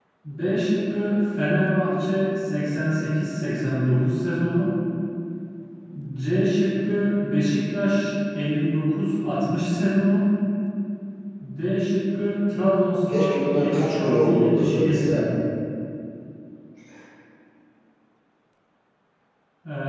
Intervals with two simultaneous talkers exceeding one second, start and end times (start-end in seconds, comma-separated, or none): 13.1-15.2